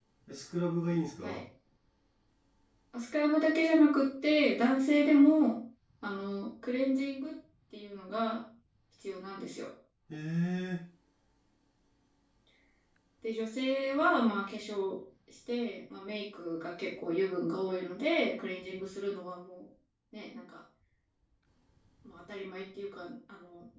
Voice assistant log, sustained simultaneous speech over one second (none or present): none